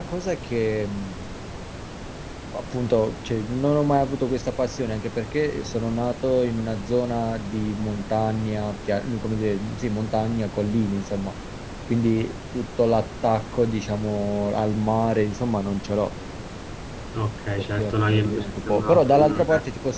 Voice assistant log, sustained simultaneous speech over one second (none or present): present